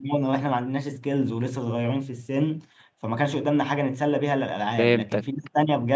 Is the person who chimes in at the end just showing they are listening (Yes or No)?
Yes